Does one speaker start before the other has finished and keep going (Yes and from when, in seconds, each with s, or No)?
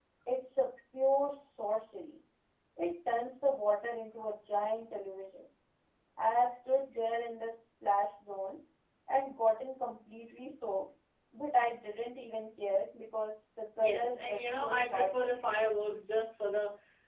Yes, from 13.8 s